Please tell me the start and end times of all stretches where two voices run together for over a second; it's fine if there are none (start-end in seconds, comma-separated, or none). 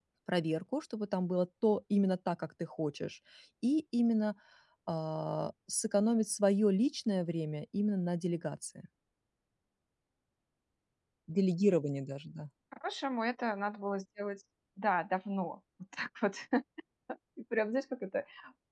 none